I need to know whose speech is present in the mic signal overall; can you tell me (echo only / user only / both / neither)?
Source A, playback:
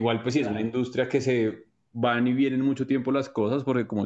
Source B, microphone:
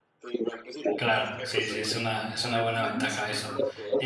both